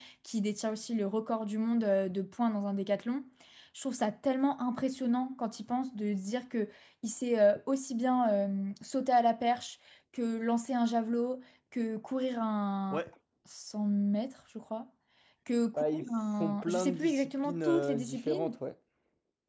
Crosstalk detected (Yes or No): Yes